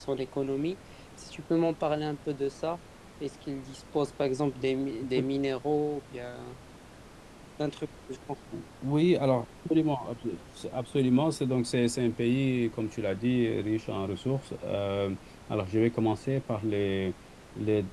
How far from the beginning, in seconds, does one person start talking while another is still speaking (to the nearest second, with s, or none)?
none